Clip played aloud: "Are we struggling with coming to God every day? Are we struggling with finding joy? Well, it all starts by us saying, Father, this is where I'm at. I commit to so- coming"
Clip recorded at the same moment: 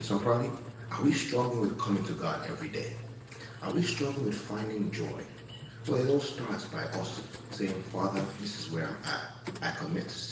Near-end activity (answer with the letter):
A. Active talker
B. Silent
B